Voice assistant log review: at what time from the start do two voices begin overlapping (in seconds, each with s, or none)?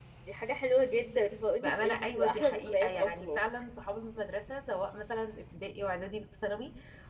1.6 s